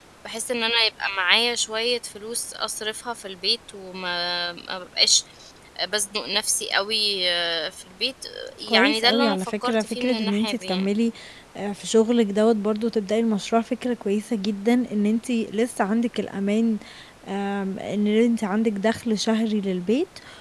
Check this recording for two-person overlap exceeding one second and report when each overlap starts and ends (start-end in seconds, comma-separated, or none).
8.7-10.8